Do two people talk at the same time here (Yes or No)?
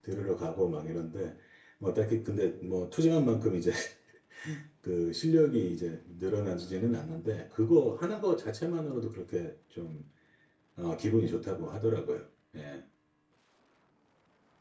No